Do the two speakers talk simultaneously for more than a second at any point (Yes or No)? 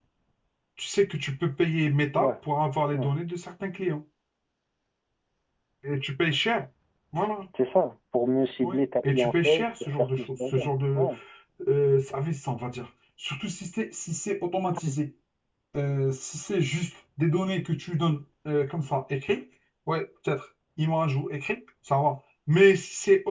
Yes